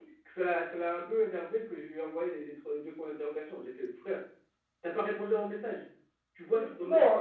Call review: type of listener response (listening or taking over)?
taking over